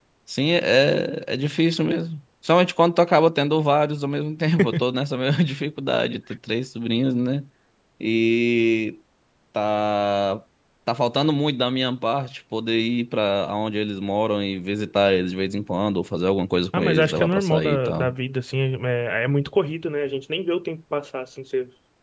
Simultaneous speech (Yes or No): Yes